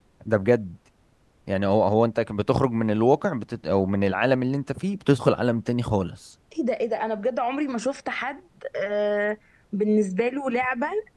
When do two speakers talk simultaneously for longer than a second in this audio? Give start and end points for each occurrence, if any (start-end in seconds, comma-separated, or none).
none